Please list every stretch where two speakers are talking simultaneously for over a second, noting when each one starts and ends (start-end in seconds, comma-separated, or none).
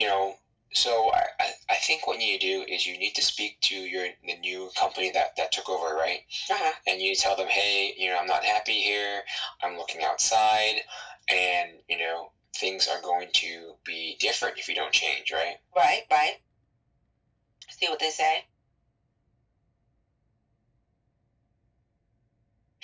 none